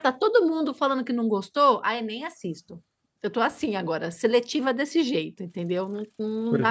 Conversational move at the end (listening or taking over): taking over